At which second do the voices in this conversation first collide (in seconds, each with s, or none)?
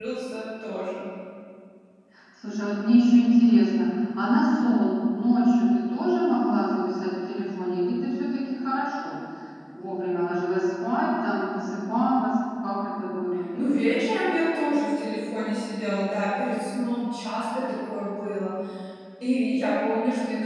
none